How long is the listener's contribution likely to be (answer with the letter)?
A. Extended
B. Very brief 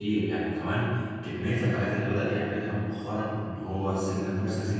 B